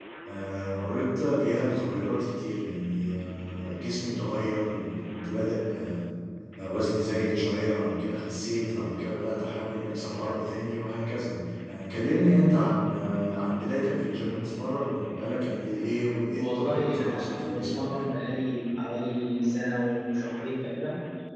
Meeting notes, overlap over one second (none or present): present